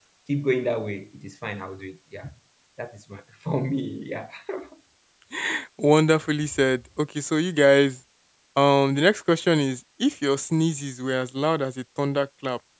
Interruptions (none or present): none